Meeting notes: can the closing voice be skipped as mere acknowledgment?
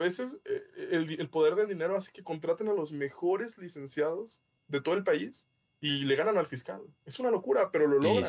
No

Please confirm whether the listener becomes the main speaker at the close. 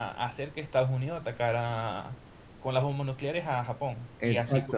Yes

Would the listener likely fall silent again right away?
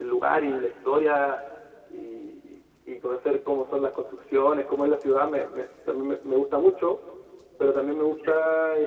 Yes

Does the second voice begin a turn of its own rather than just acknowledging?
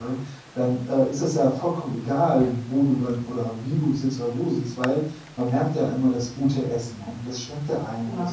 No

